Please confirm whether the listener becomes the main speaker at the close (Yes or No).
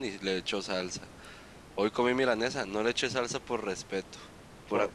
No